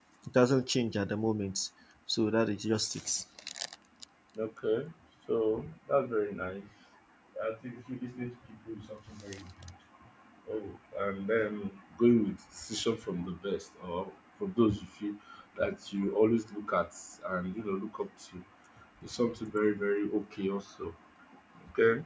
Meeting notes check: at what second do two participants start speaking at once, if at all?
none

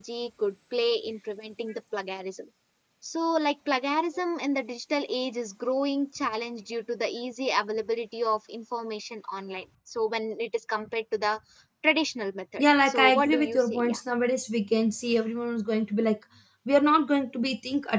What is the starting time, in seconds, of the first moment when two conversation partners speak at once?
12.6 s

